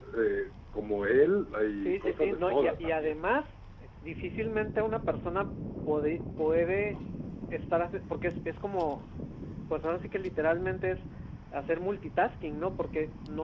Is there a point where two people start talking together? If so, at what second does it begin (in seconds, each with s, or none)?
1.8 s